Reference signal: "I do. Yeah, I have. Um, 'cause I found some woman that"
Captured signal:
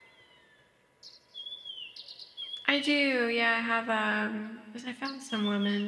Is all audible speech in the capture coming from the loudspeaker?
Yes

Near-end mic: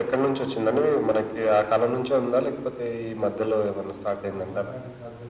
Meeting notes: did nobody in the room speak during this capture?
No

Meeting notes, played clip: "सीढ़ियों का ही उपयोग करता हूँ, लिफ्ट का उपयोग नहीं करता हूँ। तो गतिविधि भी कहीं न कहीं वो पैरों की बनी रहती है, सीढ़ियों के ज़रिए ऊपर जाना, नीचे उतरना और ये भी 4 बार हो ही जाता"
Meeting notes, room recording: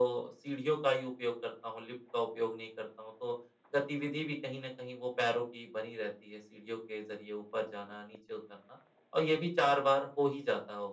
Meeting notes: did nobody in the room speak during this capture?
Yes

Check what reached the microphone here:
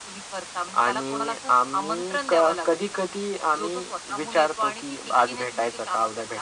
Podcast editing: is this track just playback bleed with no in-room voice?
Yes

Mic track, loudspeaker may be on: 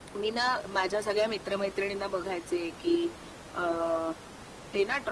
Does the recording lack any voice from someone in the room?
Yes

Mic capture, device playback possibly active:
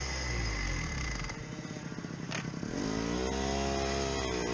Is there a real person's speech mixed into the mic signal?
No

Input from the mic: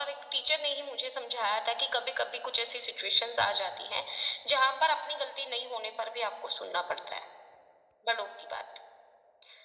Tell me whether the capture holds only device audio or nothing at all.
Yes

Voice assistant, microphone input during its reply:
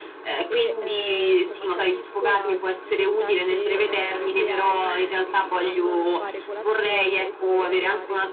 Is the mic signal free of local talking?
No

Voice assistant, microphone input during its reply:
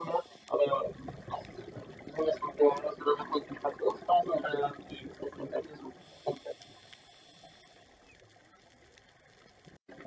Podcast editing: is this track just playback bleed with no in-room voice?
Yes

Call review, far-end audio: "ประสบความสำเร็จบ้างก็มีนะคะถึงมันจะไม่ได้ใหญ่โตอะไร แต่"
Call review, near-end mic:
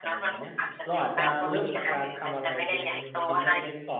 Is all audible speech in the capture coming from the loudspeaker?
No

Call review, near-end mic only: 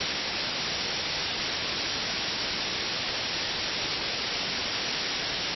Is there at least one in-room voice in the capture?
No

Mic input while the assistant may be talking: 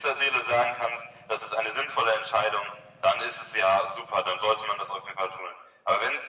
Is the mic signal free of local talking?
Yes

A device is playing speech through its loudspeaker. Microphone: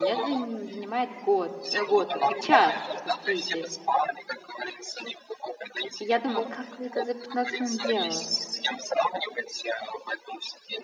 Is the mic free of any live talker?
No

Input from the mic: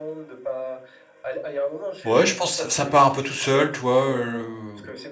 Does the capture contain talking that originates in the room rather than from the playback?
Yes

